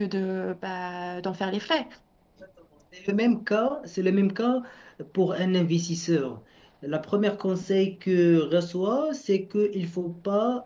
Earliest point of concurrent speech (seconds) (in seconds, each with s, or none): none